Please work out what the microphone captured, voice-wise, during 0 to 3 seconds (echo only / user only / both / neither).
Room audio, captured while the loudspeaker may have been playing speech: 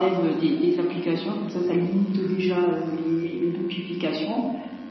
echo only